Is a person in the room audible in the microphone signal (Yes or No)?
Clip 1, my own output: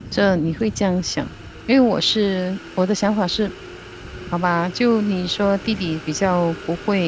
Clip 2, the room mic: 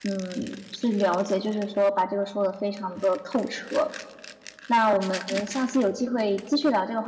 Yes